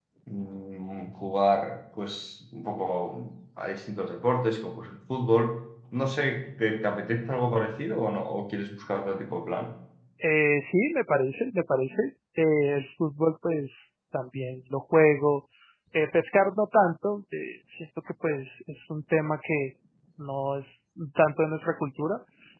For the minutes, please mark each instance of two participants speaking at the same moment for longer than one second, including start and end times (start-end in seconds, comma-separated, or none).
none